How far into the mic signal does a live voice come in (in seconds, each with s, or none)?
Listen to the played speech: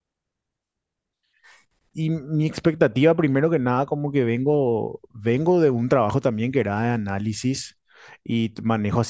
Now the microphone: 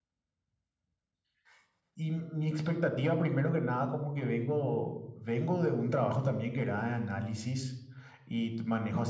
none